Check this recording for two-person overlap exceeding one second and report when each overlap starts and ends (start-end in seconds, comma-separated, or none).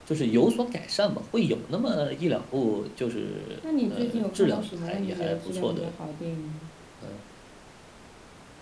3.9-5.9